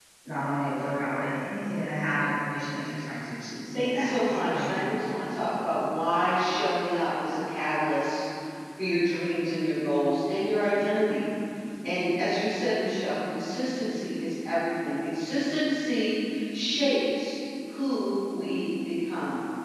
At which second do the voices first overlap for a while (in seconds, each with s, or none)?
3.7 s